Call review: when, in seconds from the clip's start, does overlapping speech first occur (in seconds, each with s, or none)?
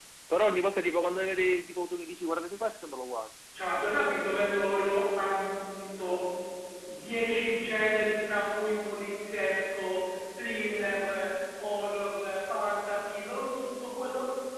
none